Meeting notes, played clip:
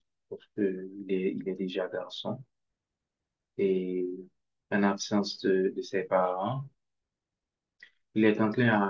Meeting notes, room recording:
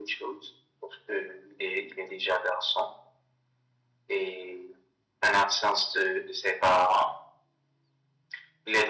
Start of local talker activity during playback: none

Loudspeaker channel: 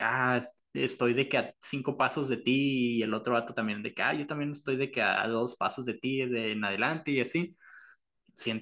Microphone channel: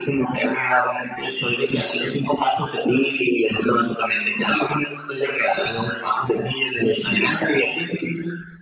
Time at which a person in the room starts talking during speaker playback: none

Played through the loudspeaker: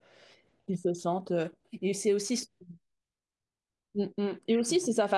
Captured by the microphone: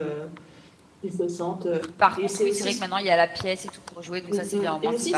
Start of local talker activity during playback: 2.0 s

